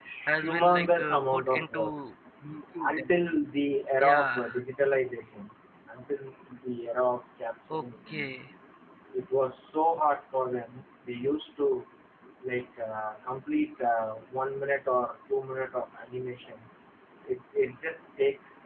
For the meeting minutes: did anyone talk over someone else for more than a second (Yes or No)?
Yes